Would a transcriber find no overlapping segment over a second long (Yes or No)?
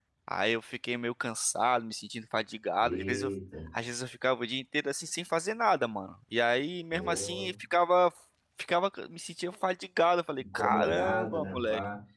No